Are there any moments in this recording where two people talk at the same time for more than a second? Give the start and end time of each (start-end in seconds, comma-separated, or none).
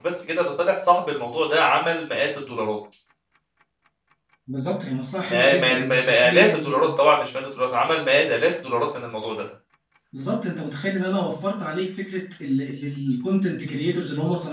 5.3-6.9